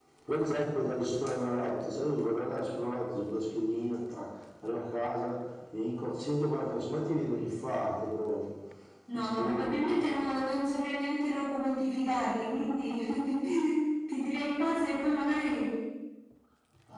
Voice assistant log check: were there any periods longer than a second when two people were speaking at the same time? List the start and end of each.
9.1-10.4

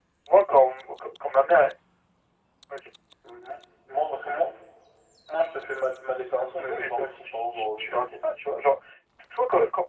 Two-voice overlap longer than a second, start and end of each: 6.7-8.2

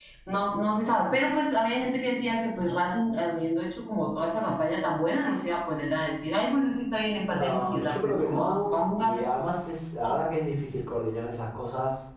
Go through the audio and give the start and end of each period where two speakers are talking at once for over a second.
7.2-9.2

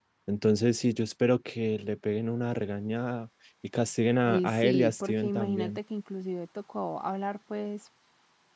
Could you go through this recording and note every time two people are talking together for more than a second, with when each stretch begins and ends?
4.2-5.8

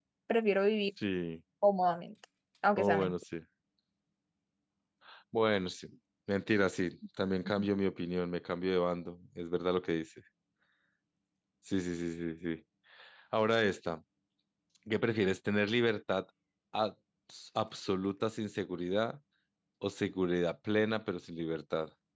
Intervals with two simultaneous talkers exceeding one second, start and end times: none

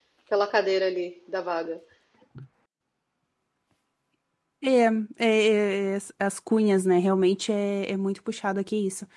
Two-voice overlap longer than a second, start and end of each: none

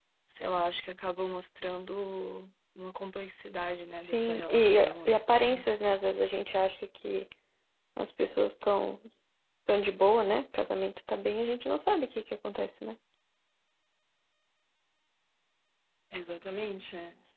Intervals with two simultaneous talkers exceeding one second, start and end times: 3.9-5.7

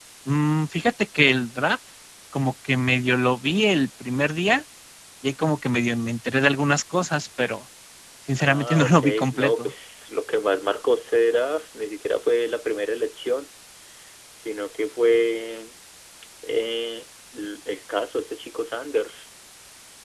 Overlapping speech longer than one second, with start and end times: 8.4-9.7

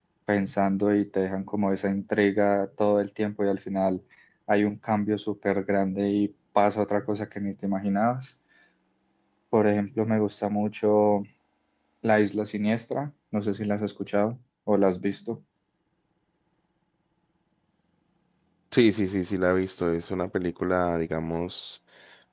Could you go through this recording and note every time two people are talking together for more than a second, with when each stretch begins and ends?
none

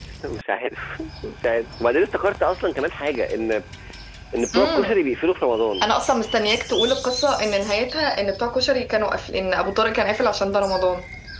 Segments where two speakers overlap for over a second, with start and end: none

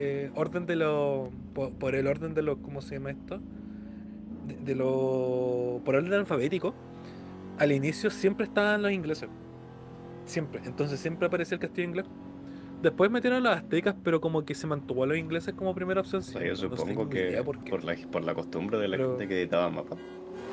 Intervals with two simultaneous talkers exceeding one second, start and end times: 16.3-17.5

